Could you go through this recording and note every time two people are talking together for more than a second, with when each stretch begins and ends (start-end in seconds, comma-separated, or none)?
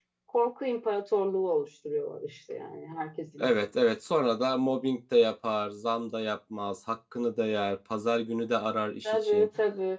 none